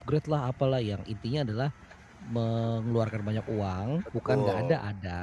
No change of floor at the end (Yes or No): Yes